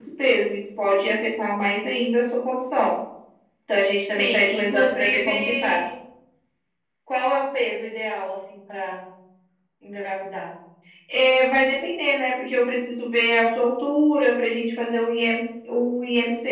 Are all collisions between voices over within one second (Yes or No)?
No